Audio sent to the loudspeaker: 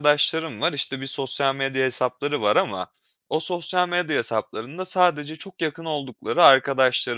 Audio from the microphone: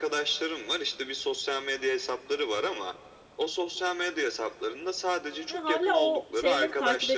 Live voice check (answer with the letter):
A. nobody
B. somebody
B